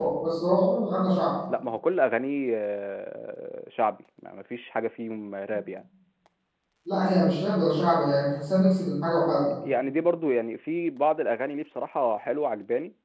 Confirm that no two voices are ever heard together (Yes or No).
Yes